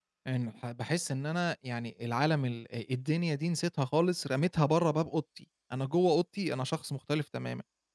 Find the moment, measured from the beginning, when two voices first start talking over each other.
none

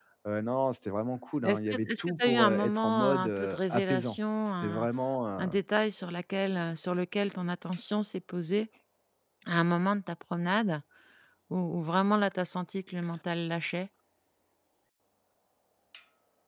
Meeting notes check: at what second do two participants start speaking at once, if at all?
1.4 s

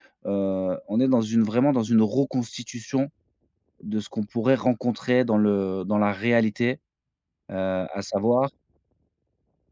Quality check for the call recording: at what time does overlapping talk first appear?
none

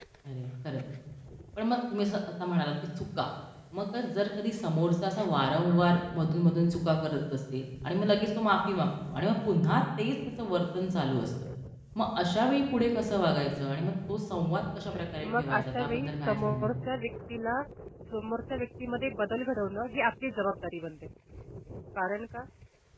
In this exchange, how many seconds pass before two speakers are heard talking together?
14.9 s

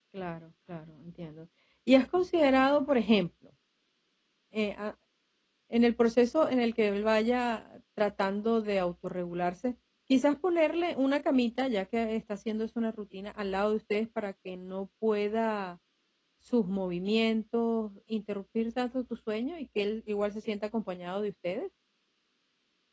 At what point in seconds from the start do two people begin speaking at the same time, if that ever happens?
none

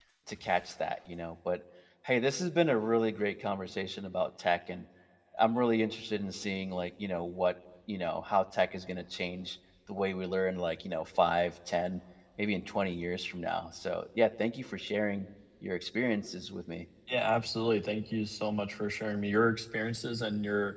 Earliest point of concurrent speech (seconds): none

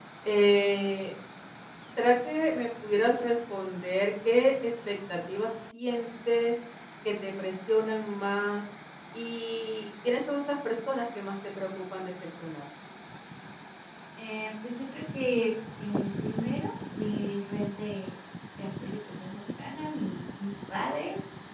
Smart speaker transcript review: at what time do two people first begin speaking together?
none

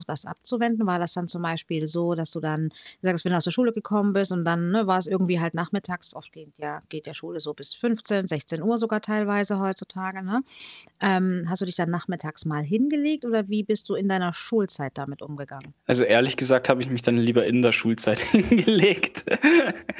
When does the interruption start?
none

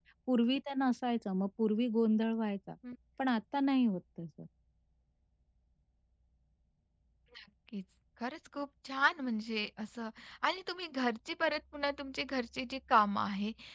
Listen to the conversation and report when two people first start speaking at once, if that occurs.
none

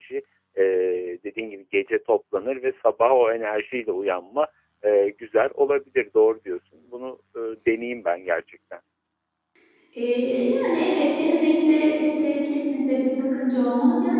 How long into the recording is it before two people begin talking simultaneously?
none

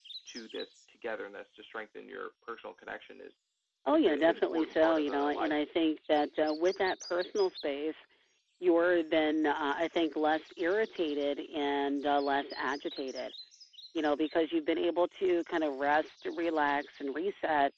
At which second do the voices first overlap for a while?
3.9 s

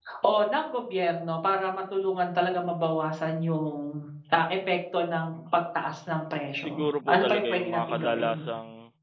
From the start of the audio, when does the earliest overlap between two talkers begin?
6.6 s

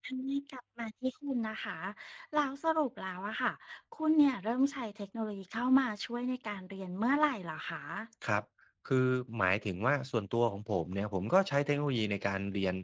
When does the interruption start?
none

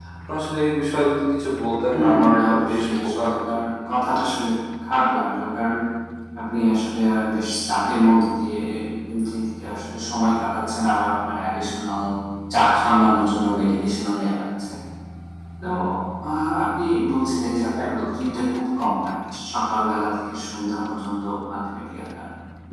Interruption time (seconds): 1.9 s

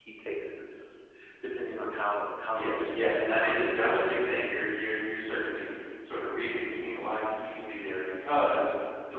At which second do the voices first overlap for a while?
2.5 s

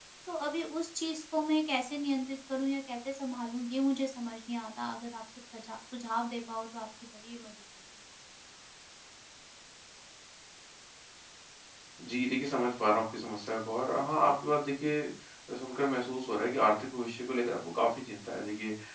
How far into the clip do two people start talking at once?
none

